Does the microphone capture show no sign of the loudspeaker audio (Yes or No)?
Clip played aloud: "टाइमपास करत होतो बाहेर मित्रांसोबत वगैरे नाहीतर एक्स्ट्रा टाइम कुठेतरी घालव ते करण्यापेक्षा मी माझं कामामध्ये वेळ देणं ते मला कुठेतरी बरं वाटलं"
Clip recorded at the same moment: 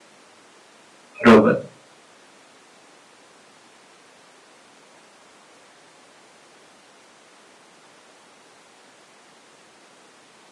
Yes